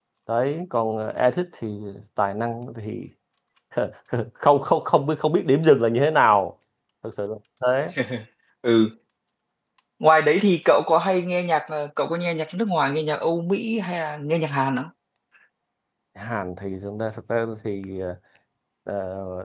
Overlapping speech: No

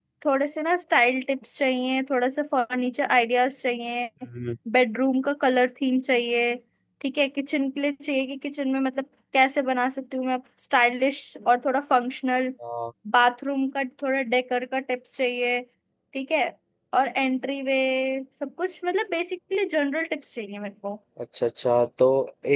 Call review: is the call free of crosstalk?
Yes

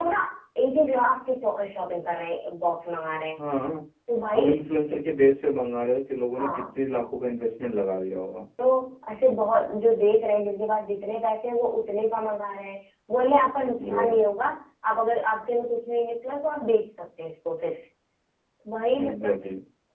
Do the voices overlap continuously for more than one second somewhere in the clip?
No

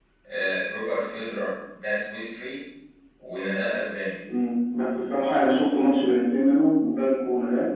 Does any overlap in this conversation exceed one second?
No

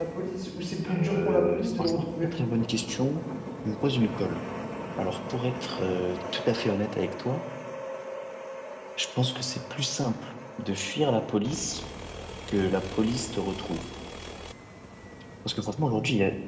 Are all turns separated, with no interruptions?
No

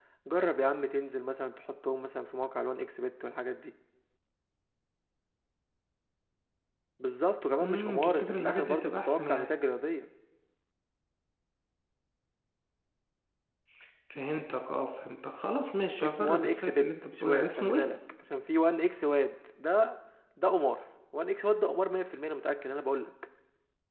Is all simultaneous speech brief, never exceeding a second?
No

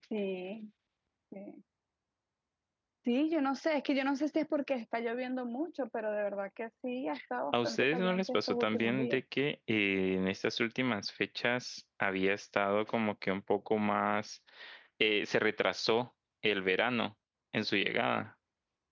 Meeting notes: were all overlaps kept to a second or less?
No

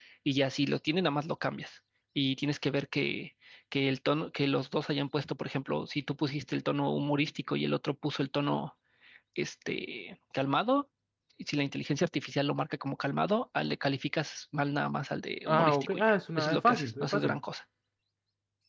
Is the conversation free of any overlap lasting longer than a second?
No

